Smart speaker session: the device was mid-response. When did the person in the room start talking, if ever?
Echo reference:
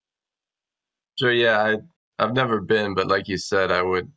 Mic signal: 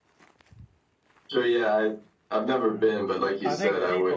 2.7 s

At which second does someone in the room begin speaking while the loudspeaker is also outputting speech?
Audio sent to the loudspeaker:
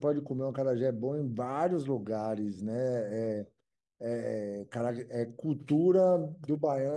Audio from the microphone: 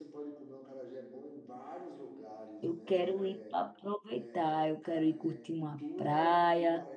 2.6 s

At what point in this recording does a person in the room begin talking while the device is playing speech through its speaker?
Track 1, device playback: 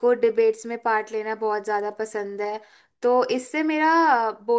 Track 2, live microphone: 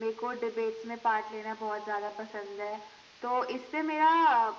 none

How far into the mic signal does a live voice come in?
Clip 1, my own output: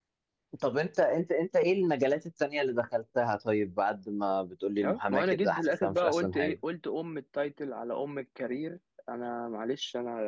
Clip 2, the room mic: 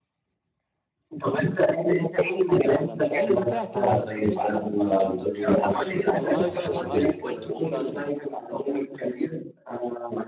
2.7 s

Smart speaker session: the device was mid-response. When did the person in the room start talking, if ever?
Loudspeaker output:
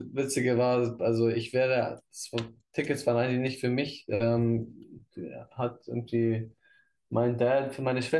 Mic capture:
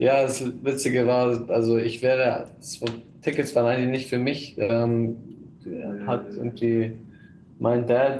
5.8 s

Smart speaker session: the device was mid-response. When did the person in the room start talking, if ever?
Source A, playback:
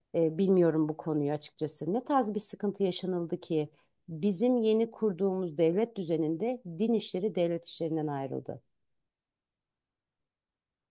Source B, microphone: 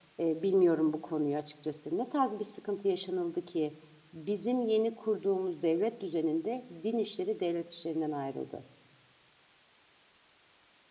none

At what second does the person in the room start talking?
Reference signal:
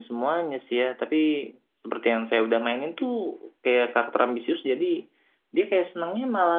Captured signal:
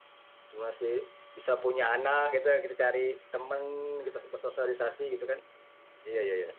0.5 s

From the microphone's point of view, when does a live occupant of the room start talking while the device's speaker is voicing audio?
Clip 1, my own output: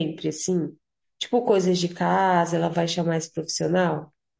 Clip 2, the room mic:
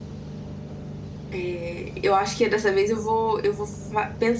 1.3 s

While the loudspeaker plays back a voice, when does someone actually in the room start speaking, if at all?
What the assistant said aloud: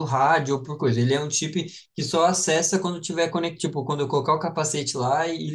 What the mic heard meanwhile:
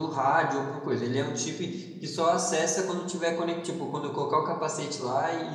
none

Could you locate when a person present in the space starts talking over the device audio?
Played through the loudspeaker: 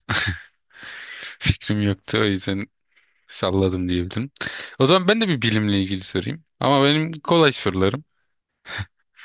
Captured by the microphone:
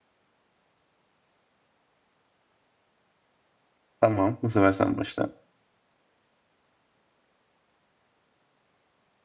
4.0 s

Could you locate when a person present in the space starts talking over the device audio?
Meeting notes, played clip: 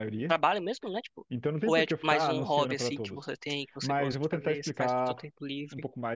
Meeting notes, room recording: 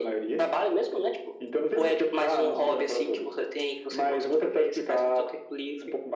none

